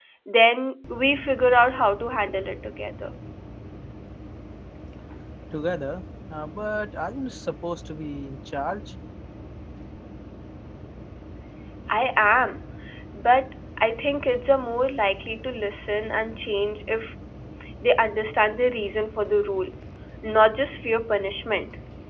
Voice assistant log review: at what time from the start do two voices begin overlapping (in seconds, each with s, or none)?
none